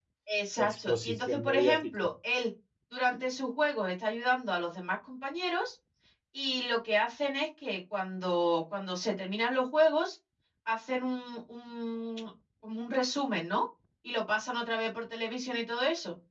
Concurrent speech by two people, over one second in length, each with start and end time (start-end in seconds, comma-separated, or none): 0.6-1.9